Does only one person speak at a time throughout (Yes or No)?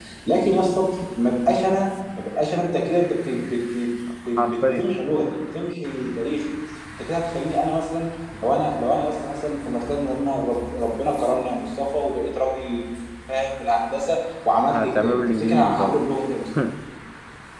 No